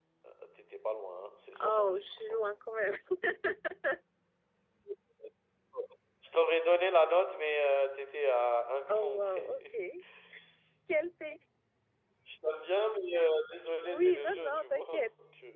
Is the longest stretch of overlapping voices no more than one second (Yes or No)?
No